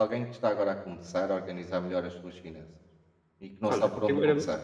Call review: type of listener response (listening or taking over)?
taking over